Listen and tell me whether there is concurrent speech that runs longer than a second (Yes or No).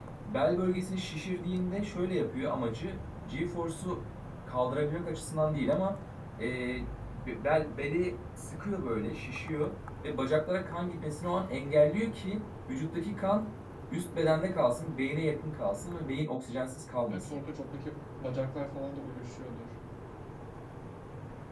No